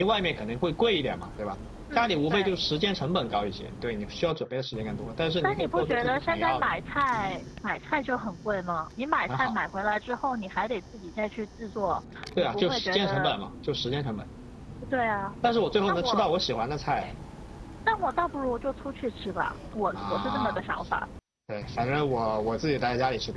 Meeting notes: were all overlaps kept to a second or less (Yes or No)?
No